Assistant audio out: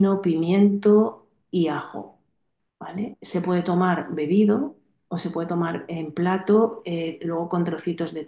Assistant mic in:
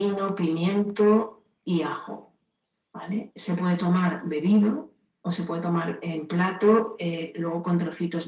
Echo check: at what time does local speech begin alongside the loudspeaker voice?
none

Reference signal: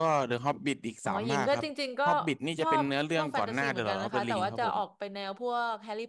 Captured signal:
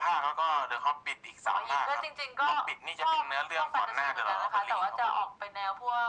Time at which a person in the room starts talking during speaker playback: none

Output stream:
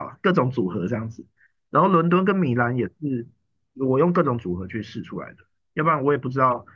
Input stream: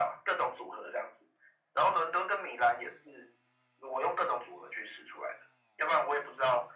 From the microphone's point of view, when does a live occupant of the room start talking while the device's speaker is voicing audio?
none

